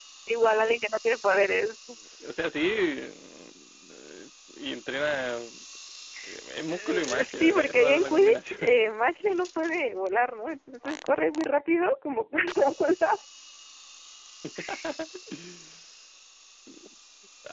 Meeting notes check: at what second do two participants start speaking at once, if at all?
6.7 s

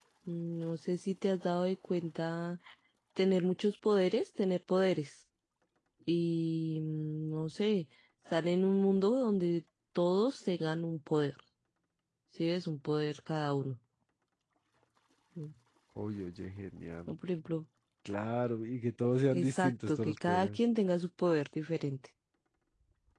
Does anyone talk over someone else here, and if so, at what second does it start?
19.3 s

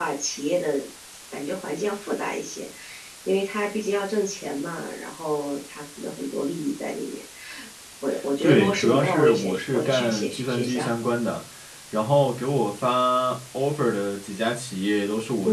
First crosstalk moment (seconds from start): 8.4 s

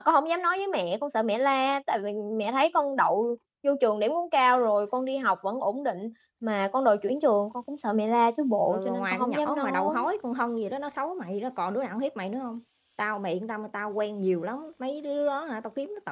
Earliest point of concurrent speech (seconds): 8.7 s

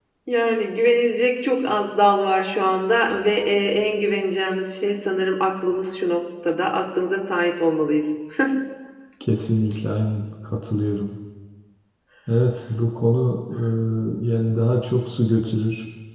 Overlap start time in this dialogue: none

